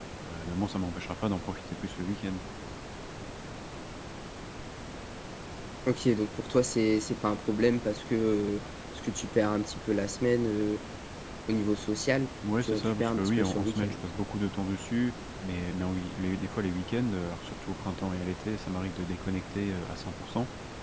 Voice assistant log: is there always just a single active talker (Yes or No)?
No